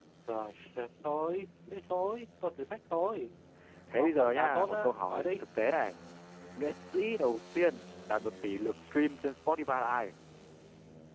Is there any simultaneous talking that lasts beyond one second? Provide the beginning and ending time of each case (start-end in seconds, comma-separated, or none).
3.9-5.3